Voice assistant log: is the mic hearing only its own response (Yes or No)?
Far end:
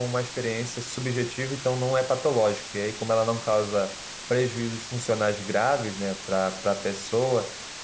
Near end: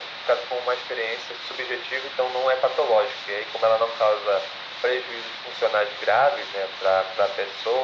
Yes